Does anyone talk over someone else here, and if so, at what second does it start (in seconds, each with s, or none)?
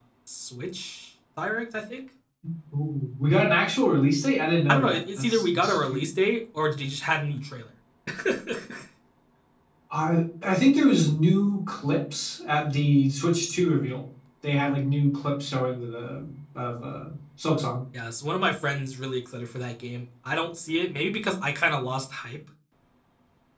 4.7 s